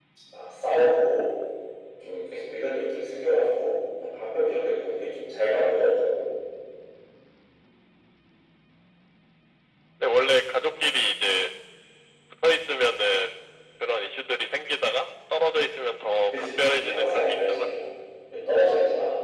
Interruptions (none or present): present